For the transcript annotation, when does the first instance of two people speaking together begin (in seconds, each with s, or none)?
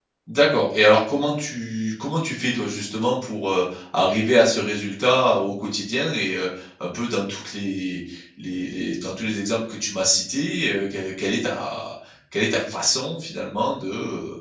none